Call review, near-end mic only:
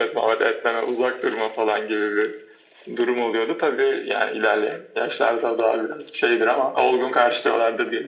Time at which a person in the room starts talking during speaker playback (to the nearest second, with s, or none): none